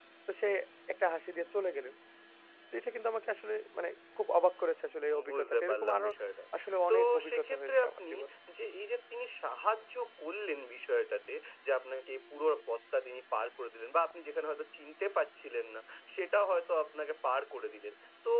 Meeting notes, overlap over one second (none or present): present